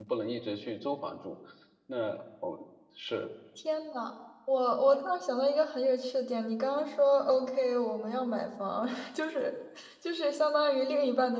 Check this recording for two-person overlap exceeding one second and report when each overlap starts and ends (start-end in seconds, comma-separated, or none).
none